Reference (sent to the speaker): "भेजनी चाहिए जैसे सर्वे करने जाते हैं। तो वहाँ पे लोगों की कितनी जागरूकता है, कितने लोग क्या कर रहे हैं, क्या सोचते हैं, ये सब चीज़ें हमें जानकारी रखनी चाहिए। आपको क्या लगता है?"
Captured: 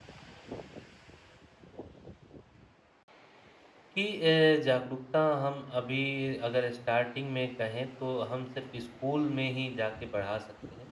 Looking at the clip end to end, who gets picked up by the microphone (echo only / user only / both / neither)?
user only